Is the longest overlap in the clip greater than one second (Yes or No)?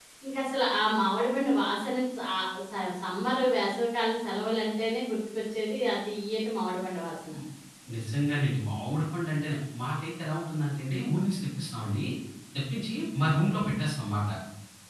No